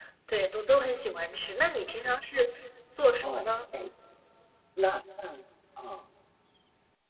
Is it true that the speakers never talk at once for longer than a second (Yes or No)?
Yes